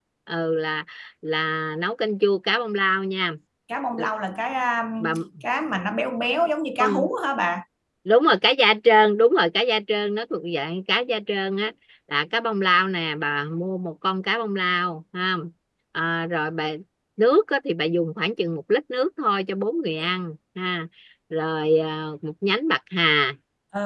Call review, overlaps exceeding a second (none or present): none